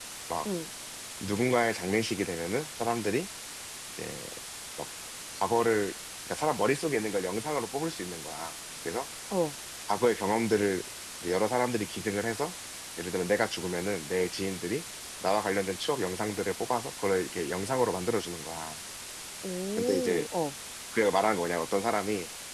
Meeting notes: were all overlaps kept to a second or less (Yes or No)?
Yes